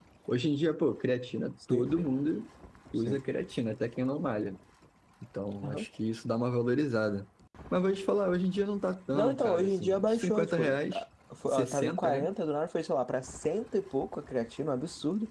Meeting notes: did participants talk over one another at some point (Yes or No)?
Yes